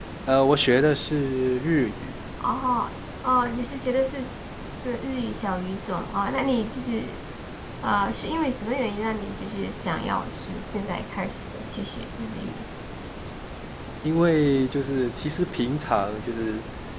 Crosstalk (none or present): none